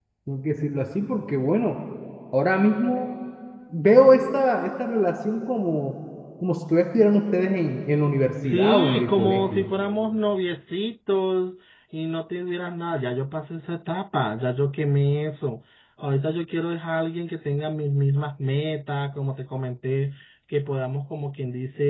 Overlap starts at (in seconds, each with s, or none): 8.4 s